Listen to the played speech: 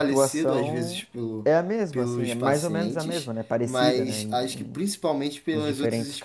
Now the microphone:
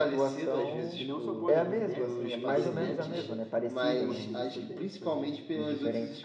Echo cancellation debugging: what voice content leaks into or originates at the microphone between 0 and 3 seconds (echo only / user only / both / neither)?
both